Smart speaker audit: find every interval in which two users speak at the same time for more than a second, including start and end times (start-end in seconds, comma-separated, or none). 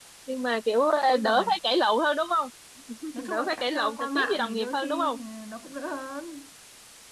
3.3-5.2